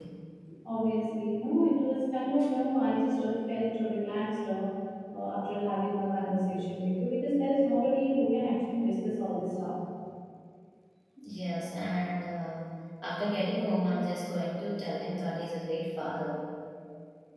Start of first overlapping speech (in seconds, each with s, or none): none